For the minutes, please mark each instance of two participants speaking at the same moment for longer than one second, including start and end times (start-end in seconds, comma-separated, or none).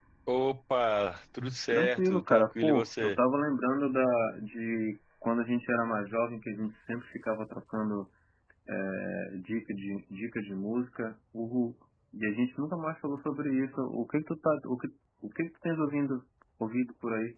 1.7-3.2